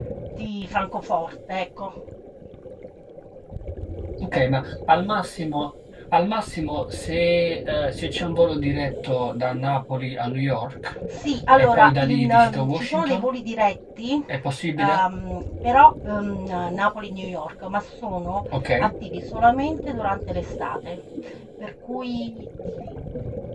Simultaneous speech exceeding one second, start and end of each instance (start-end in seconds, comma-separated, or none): 11.6-13.3